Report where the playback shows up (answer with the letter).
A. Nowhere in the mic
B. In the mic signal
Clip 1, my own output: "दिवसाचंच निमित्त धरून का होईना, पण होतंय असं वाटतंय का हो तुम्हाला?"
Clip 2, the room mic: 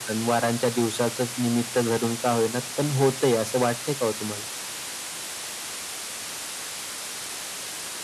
B